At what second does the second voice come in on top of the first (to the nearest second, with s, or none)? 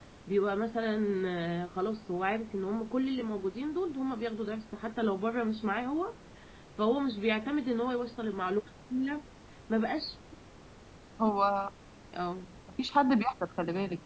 none